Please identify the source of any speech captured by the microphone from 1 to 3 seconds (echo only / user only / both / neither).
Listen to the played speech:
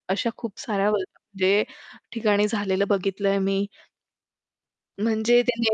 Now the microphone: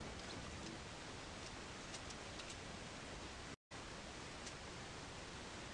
neither